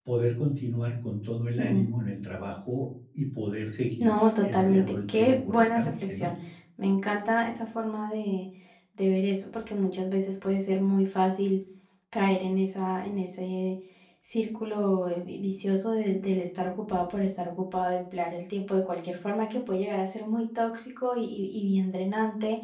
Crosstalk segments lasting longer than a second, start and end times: 4.0-6.3

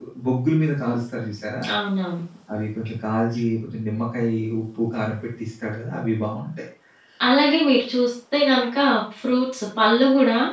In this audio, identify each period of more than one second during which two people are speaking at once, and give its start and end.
none

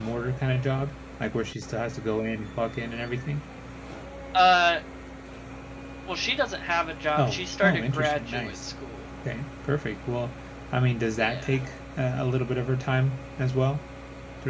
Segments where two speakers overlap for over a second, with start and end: 7.2-8.7

